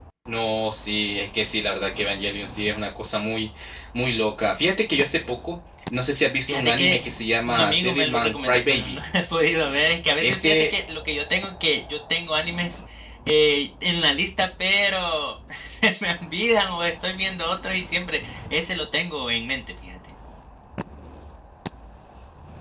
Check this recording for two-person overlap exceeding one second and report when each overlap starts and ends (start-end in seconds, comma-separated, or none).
7.5-9.0